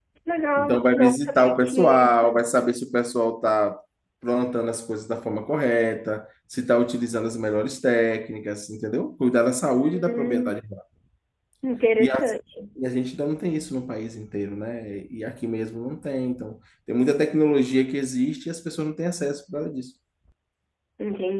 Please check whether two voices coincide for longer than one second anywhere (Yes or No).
Yes